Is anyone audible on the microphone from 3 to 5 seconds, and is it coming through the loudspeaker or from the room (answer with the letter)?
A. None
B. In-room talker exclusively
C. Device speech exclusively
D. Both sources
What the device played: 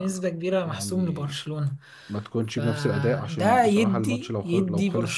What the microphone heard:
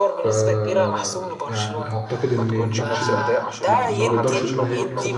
D